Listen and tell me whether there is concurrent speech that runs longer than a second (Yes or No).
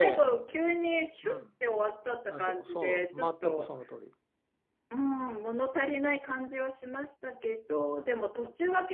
Yes